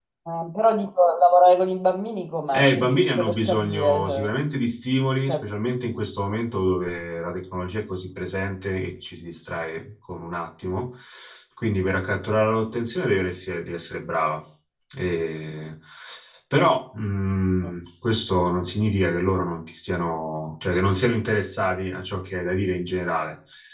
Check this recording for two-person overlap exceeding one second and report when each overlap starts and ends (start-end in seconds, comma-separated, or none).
2.5-4.3